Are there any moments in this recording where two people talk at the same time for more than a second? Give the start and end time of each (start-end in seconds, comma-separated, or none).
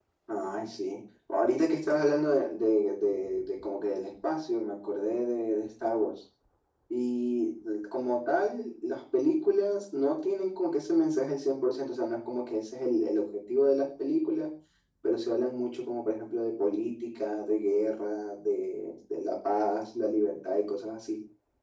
none